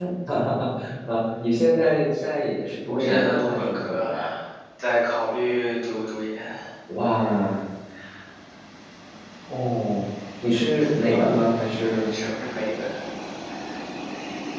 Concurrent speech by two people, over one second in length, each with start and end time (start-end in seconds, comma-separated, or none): 2.9-4.1